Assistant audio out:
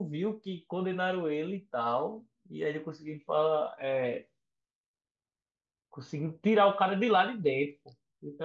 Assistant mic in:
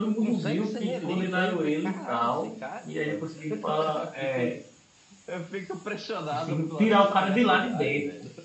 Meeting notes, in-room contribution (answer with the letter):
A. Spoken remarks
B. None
A